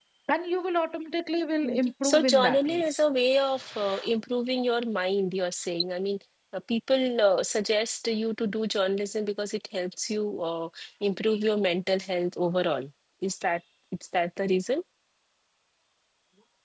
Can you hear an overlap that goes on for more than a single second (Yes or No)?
Yes